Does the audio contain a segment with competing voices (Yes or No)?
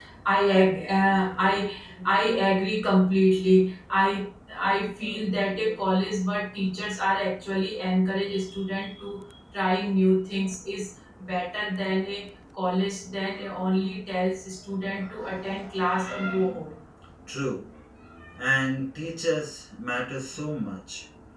No